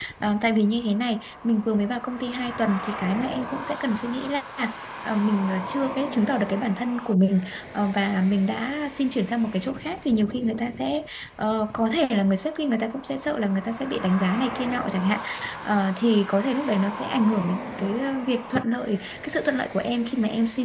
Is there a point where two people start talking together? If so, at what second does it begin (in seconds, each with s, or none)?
none